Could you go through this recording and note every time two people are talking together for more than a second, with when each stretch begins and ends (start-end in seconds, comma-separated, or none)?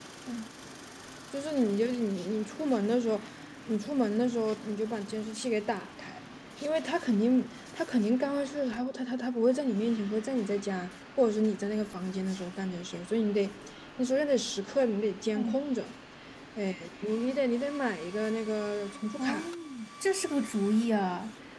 none